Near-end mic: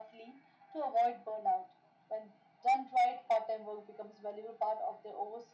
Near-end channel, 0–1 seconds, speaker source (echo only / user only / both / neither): echo only